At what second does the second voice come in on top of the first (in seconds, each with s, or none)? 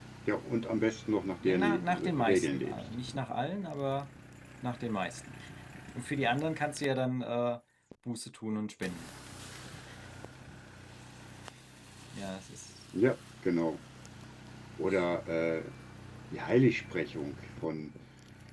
1.4 s